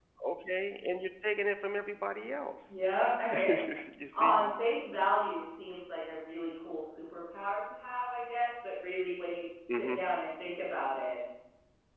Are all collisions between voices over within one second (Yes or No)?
Yes